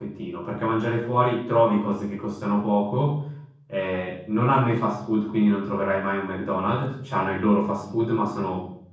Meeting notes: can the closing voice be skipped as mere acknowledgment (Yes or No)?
Yes